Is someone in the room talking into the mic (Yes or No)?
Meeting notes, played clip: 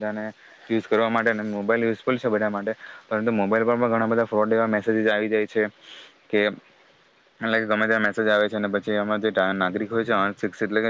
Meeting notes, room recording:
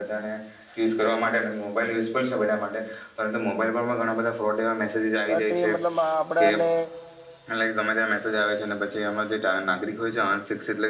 Yes